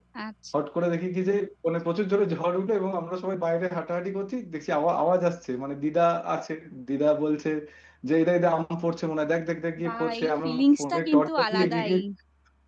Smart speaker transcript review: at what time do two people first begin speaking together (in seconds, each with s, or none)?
9.8 s